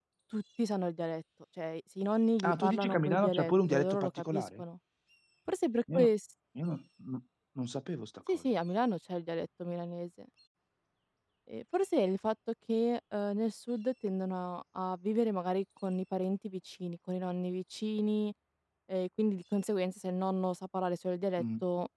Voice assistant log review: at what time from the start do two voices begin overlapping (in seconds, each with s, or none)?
2.4 s